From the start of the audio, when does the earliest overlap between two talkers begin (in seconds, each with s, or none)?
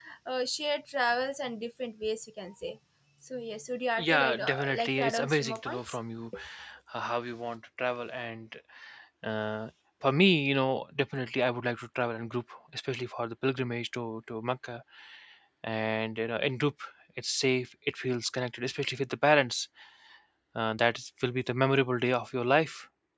4.0 s